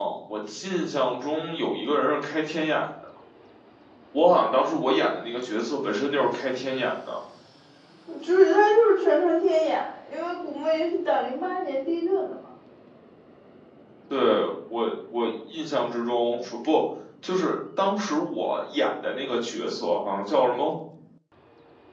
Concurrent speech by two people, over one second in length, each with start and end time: none

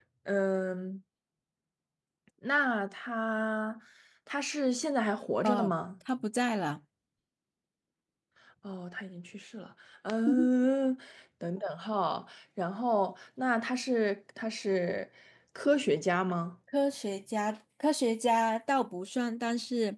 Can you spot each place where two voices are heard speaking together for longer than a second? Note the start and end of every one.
none

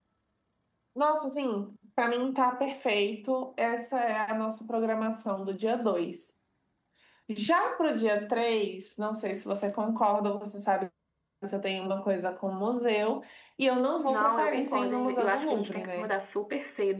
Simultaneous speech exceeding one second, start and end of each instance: 14.1-16.1

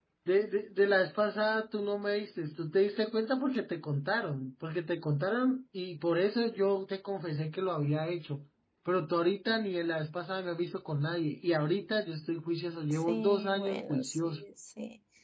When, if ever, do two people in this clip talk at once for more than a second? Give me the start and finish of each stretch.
13.1-14.4

